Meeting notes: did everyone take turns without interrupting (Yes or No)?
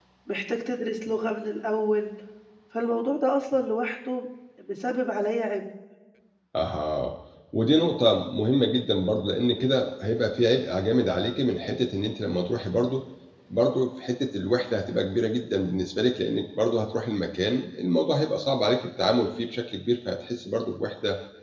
Yes